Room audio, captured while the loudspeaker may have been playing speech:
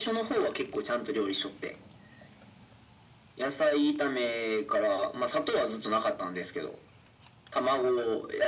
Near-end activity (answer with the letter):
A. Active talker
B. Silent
B